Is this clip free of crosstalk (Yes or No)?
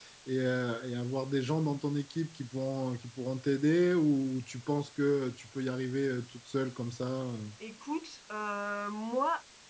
Yes